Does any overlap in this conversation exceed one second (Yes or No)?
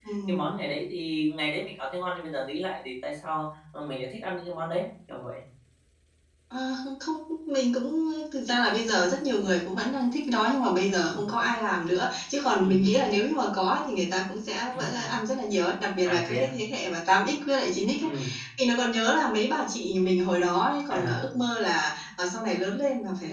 No